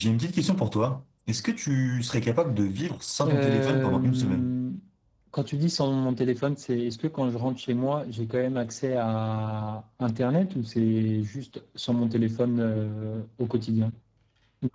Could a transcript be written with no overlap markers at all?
No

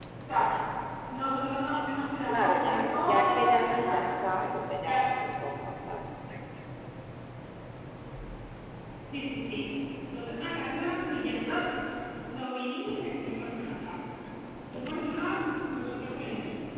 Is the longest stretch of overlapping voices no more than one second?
No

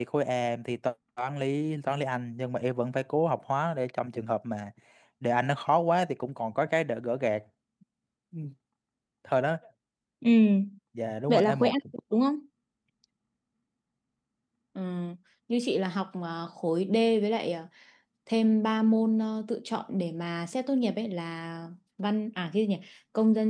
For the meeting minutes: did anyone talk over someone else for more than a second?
No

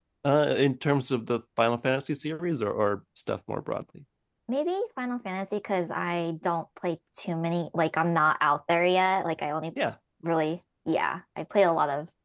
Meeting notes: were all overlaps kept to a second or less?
Yes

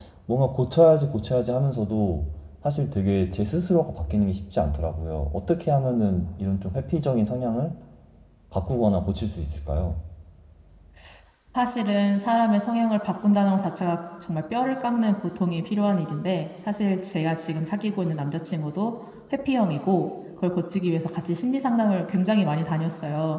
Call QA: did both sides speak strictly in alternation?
Yes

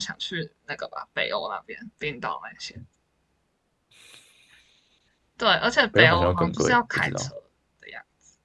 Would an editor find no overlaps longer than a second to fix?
No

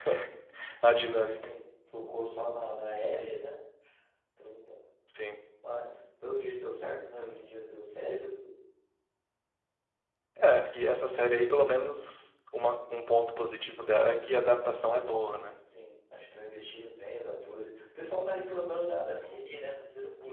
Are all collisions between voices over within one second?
Yes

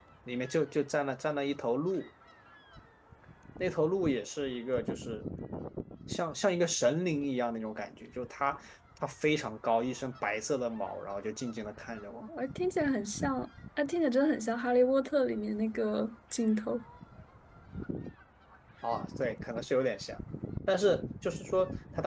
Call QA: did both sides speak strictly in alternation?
Yes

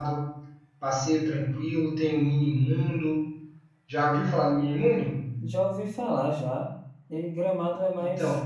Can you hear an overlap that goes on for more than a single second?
No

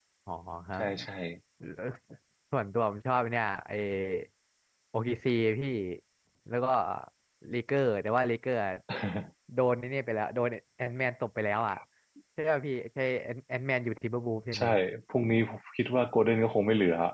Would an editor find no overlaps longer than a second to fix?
Yes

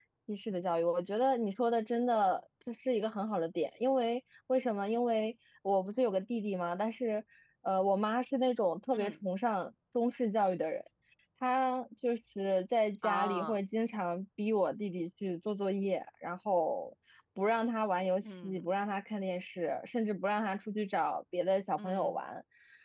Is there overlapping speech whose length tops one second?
No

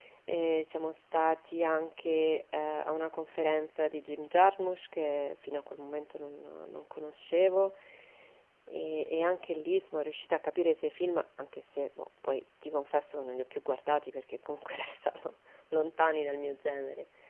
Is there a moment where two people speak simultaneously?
No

